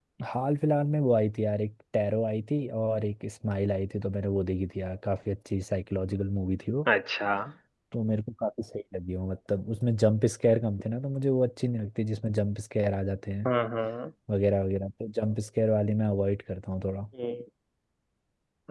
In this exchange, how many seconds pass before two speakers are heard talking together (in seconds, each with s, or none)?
none